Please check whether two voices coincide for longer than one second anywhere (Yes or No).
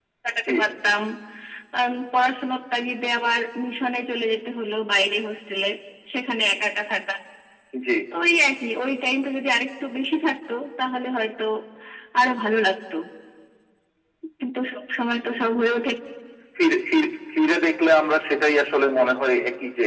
No